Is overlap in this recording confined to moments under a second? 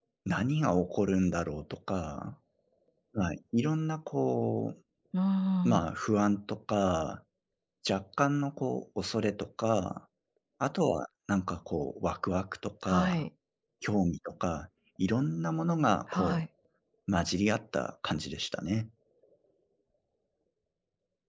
Yes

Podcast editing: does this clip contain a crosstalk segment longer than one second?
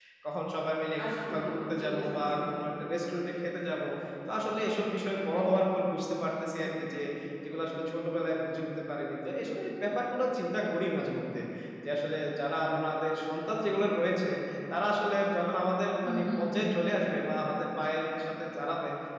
Yes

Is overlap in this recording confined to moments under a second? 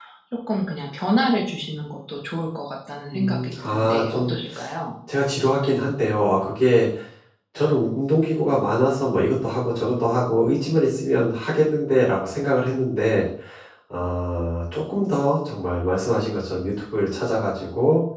No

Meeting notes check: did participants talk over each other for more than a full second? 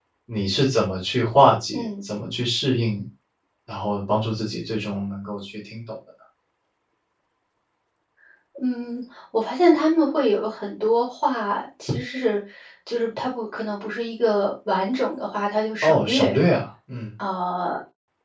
No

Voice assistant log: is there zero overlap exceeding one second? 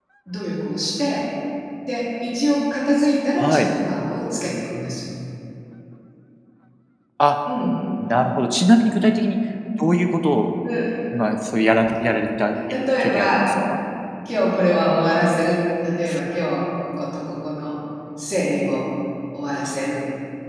Yes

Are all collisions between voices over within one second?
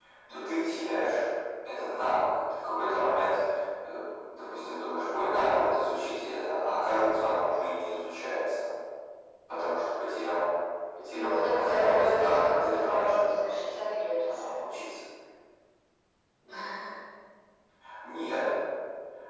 No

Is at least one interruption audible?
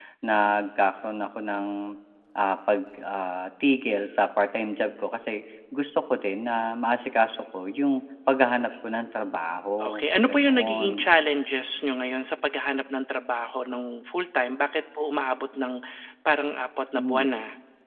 Yes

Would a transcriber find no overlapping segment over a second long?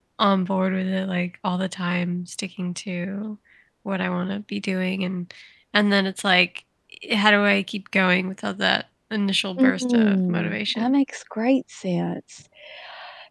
No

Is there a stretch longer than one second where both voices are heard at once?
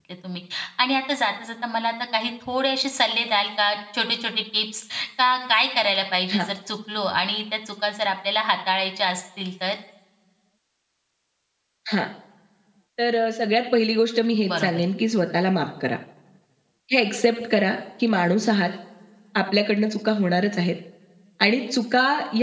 No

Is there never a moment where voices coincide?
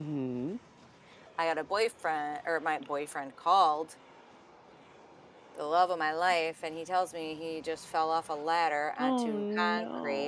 No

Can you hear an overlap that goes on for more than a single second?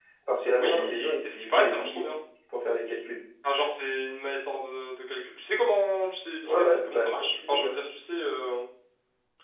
Yes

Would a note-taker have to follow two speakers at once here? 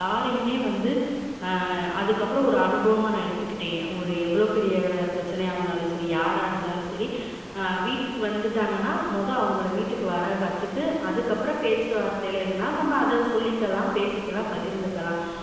No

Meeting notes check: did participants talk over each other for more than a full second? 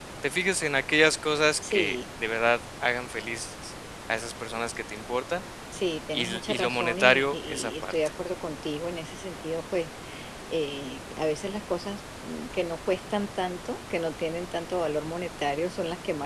Yes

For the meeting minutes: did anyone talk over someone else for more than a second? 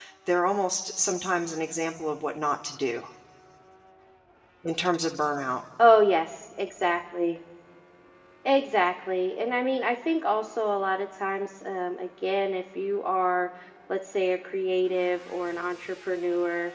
No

